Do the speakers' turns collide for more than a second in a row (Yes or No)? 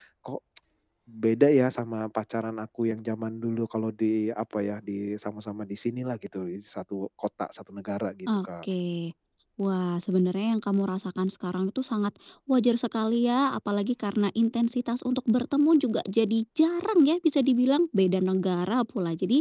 No